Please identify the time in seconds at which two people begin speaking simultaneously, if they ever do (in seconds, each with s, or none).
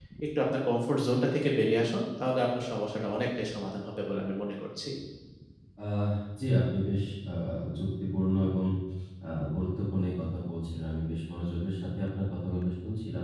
none